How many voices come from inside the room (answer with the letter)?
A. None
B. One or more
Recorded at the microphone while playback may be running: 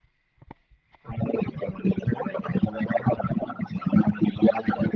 A